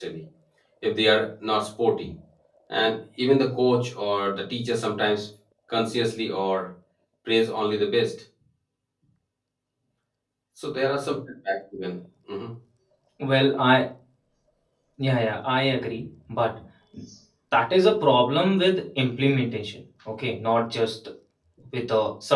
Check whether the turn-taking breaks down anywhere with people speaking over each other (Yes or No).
No